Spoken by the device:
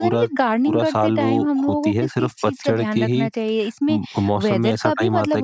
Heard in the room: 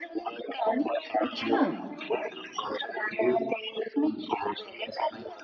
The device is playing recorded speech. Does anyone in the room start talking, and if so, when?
1.2 s

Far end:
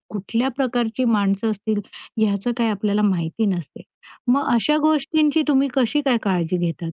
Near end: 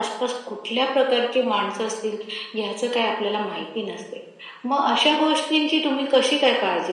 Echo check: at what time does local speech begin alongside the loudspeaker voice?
none

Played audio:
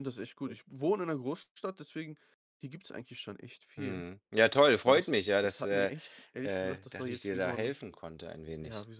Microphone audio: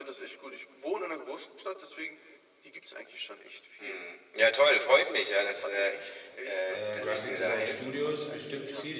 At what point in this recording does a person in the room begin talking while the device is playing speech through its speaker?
6.7 s

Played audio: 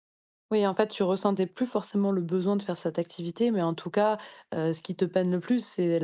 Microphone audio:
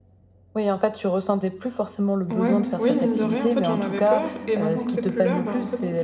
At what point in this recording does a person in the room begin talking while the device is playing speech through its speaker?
2.3 s

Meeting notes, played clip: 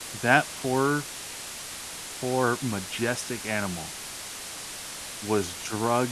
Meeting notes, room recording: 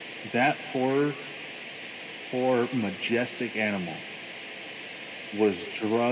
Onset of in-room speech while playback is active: none

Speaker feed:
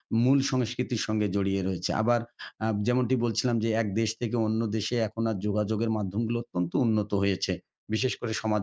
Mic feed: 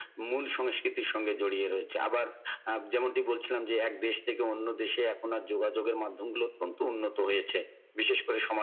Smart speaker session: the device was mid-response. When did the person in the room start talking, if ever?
none

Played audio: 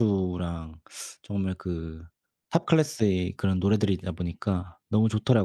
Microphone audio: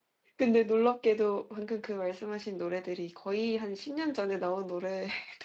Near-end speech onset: 0.4 s

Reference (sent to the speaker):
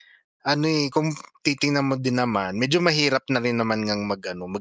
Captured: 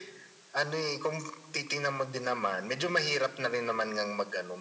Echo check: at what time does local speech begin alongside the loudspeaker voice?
none

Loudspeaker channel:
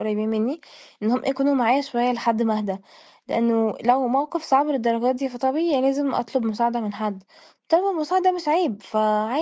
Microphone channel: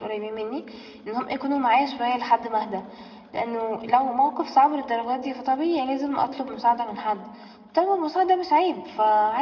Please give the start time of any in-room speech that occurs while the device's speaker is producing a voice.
none

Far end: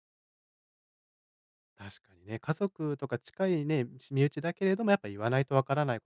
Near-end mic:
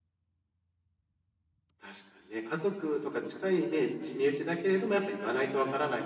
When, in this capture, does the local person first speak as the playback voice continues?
none

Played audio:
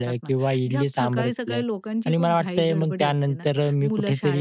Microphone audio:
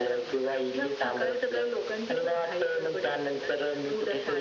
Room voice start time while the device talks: none

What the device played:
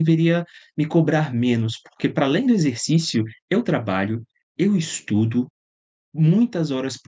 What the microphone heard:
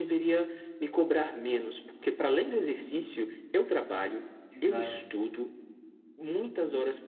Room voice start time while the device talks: 4.5 s

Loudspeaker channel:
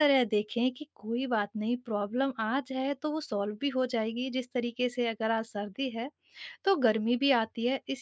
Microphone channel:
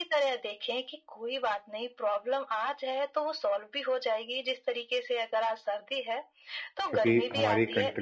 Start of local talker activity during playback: 6.9 s

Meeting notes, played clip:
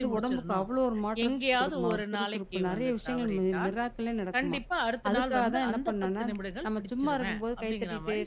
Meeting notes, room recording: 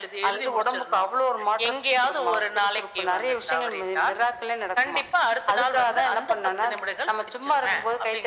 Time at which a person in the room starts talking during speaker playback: none

